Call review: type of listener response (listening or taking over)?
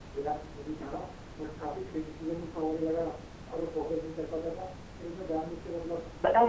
taking over